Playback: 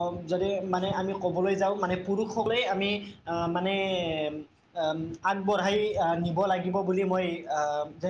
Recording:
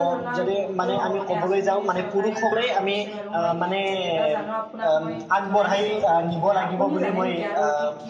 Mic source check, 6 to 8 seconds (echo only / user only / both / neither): both